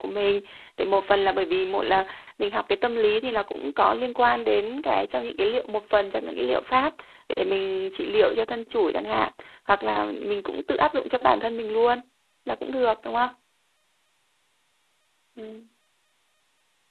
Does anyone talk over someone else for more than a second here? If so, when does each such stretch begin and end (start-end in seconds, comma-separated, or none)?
none